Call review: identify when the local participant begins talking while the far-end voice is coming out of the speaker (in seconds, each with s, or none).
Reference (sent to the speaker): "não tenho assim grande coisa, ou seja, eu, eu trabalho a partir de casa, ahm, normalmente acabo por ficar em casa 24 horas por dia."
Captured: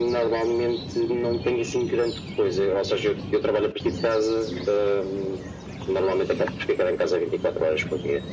none